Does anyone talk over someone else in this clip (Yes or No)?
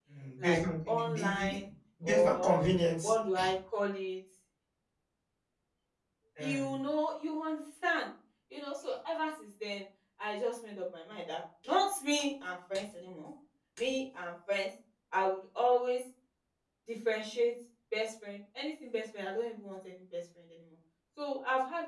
Yes